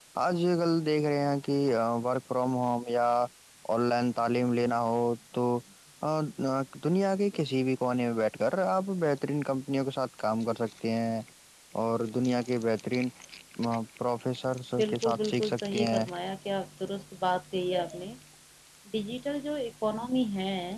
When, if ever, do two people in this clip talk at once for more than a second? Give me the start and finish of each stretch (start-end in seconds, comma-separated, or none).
14.8-16.0